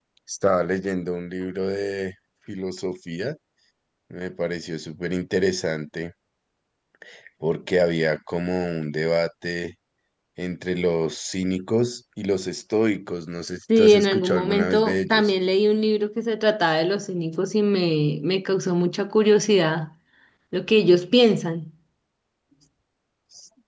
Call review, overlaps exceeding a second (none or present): present